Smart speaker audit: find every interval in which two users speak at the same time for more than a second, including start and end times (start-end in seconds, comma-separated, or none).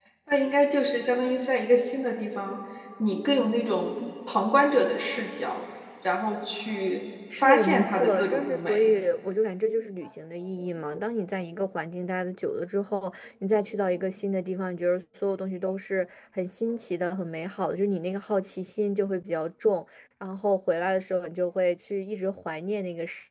7.3-8.9